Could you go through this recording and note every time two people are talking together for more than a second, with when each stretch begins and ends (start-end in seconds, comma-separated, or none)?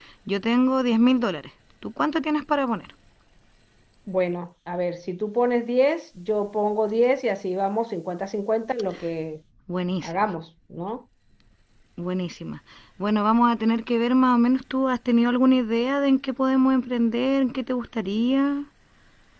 none